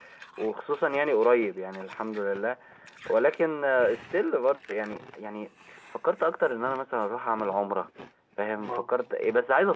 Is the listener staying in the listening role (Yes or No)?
Yes